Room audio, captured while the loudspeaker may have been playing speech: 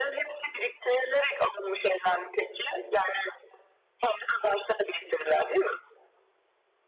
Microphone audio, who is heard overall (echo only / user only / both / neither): echo only